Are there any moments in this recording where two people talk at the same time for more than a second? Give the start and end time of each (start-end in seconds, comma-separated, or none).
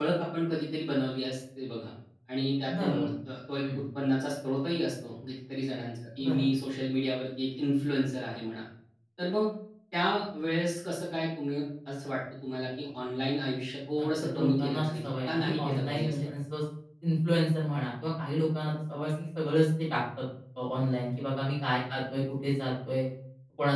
14.0-16.3